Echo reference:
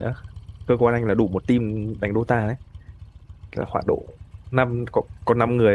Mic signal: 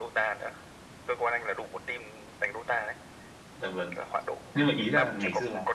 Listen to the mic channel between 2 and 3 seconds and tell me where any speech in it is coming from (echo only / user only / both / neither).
echo only